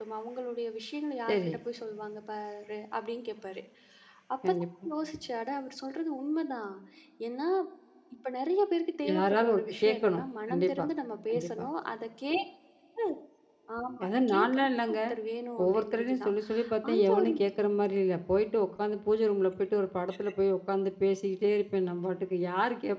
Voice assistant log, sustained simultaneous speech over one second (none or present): present